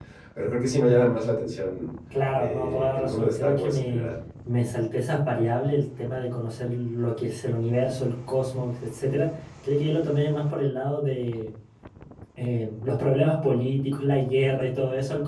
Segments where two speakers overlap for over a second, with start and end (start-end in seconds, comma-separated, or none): 2.3-4.1